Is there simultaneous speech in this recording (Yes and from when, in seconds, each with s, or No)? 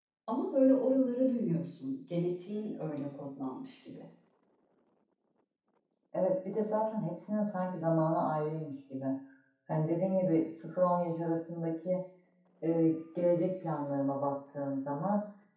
No